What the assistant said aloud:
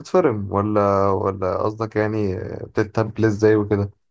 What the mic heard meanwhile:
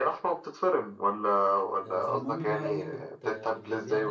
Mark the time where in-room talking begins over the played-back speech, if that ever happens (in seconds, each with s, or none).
1.8 s